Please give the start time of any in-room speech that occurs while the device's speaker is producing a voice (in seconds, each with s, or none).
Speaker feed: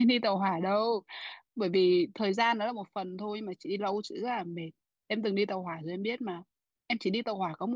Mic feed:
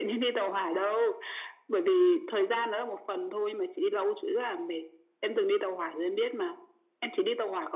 none